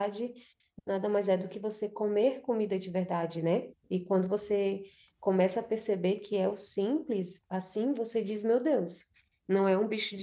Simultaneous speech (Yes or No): No